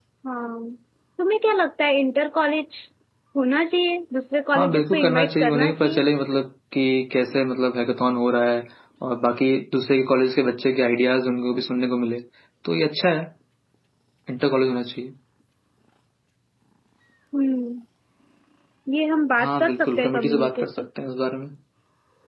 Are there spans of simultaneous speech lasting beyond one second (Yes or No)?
Yes